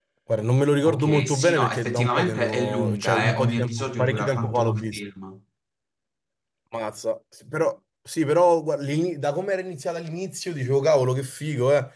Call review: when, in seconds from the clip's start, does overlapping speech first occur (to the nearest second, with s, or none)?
1 s